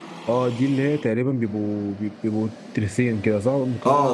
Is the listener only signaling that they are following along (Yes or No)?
No